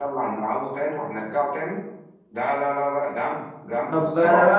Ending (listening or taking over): taking over